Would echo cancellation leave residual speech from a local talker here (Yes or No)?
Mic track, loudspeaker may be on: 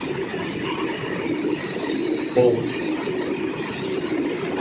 Yes